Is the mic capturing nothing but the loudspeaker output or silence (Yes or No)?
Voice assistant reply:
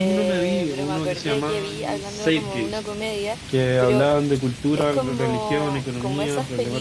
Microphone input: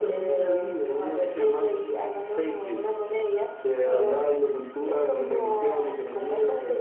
No